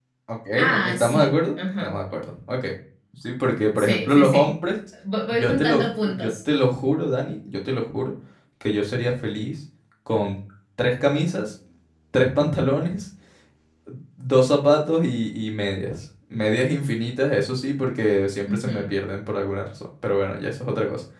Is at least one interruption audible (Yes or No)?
Yes